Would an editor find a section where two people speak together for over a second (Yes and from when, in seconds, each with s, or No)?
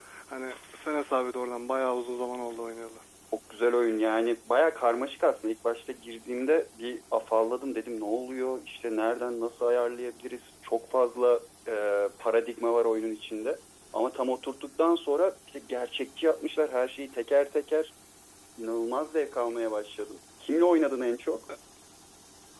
No